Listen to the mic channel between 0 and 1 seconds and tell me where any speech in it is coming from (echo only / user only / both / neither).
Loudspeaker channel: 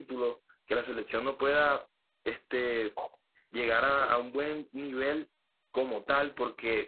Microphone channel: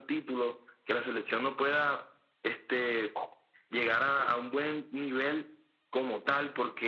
echo only